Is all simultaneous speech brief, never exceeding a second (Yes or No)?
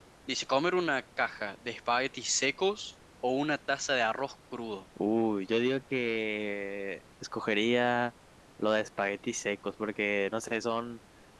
Yes